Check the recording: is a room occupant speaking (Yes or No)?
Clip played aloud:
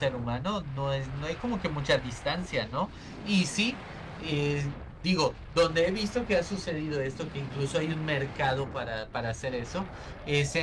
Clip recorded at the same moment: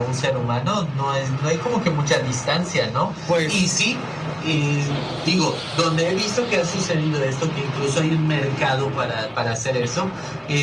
Yes